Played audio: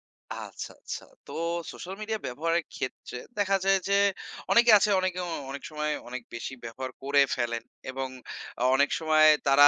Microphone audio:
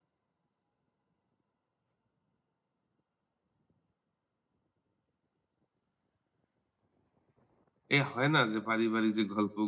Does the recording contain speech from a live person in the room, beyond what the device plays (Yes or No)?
Yes